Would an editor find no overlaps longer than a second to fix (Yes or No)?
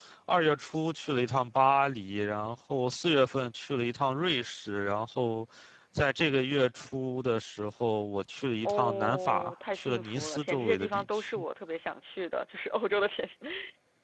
No